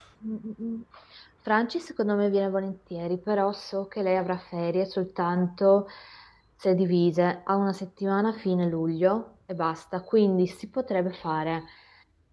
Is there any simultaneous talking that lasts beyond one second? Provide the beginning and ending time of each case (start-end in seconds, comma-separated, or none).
none